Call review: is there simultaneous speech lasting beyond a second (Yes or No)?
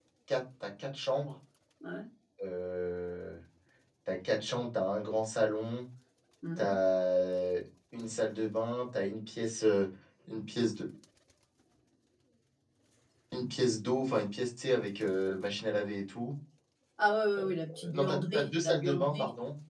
Yes